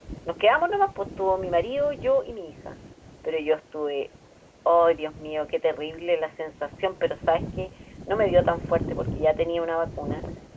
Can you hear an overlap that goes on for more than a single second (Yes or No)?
No